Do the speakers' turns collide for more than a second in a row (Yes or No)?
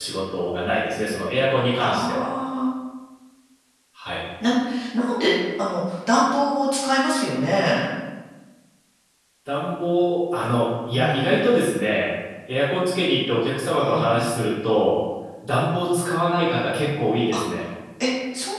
No